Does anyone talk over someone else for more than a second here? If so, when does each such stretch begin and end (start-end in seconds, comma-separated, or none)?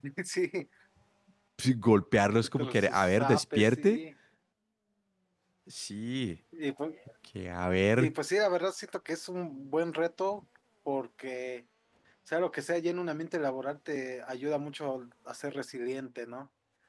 2.6-4.0